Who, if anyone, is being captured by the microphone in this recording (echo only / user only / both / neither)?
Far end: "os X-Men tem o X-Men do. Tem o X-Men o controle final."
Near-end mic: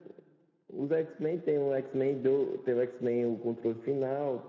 echo only